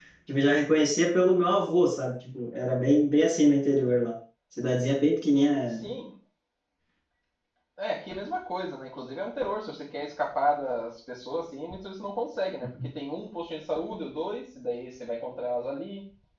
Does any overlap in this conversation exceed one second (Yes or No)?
No